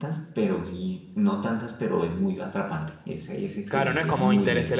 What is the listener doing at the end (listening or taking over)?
taking over